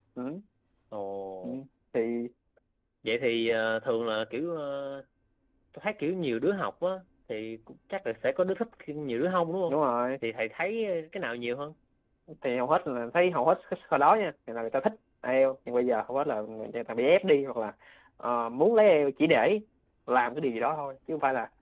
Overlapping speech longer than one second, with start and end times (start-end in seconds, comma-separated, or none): none